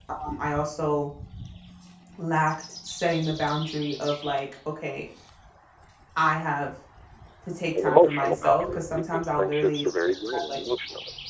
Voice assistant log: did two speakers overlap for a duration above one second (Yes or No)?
Yes